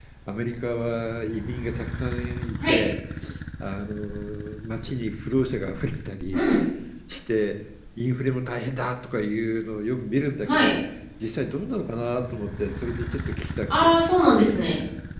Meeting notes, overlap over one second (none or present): none